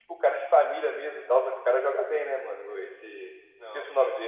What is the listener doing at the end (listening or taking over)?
taking over